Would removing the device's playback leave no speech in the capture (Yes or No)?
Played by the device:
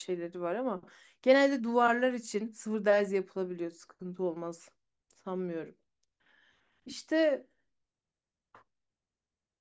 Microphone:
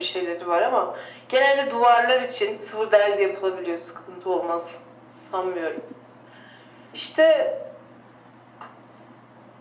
Yes